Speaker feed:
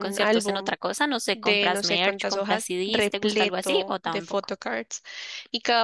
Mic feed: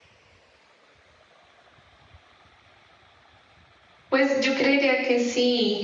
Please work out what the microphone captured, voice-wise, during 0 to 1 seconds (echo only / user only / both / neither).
neither